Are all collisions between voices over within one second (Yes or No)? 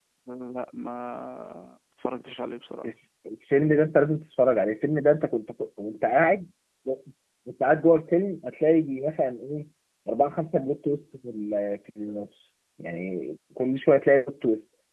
Yes